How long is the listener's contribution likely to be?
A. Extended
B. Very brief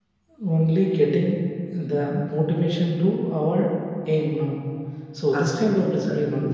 A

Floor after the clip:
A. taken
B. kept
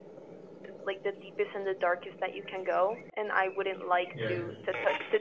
B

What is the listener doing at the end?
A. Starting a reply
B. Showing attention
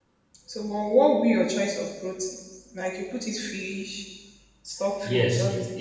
A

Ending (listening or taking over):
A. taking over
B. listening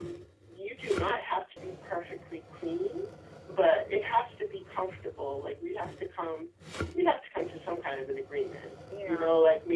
B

